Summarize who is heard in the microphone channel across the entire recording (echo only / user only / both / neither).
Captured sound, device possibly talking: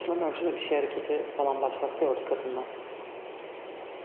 echo only